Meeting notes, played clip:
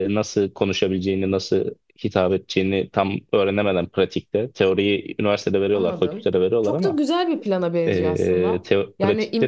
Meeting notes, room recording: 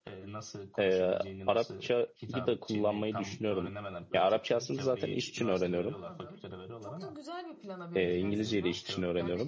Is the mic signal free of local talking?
No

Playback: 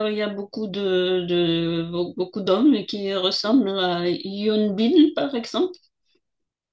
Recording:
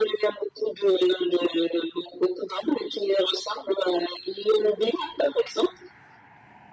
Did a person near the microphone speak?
No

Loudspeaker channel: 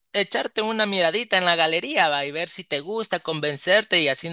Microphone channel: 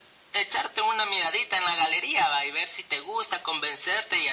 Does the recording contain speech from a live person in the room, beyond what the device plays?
No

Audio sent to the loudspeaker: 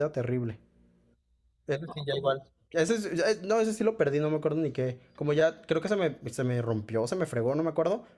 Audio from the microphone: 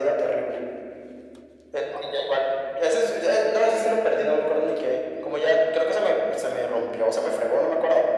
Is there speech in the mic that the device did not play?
No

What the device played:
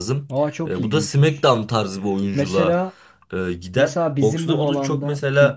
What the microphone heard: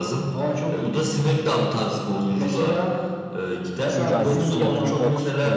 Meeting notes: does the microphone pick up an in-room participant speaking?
Yes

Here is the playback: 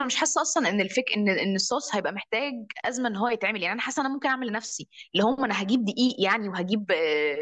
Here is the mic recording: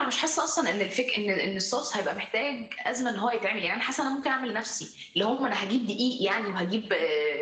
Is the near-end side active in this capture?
No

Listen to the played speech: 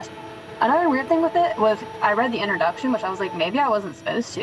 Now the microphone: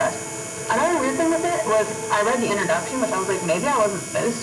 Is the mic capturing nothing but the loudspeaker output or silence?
Yes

